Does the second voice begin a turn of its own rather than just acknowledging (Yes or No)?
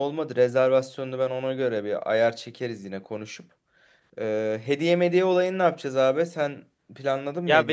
Yes